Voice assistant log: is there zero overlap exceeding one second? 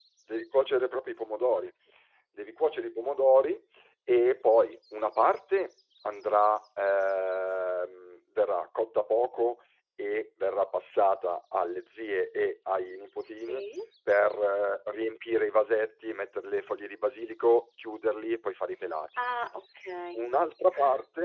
Yes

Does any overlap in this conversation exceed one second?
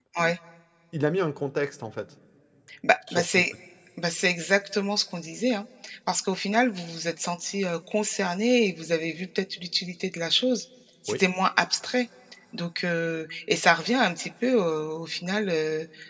No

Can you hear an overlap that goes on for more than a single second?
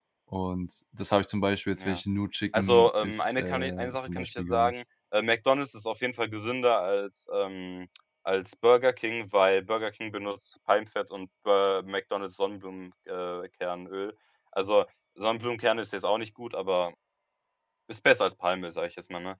Yes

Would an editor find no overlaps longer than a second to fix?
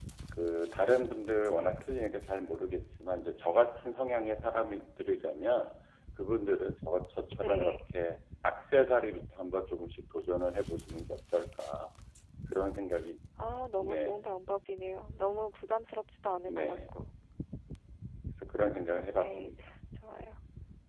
Yes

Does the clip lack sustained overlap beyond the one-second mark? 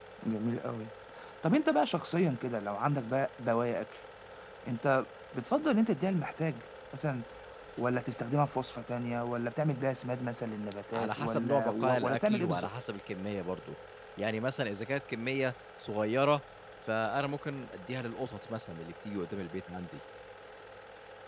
No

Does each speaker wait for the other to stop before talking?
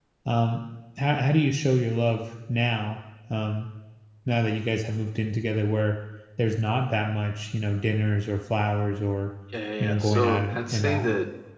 No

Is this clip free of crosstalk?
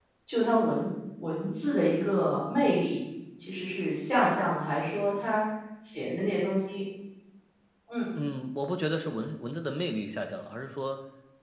Yes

